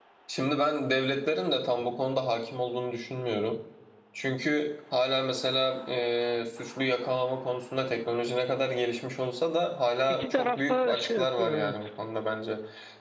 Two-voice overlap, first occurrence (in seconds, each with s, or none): 10.1 s